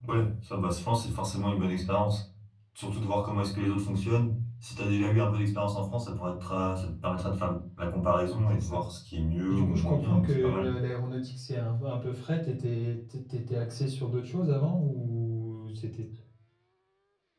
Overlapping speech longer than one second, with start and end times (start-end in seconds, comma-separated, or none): 9.5-10.7